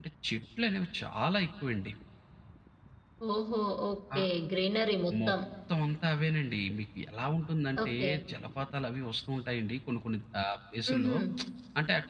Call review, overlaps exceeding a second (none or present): none